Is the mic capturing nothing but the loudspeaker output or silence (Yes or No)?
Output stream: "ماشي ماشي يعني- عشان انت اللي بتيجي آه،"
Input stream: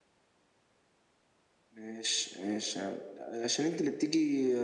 Yes